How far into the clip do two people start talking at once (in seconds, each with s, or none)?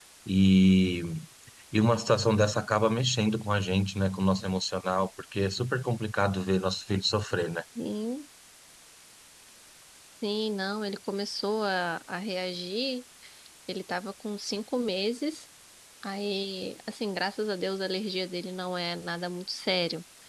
none